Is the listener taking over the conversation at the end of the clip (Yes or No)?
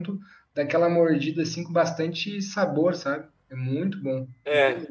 Yes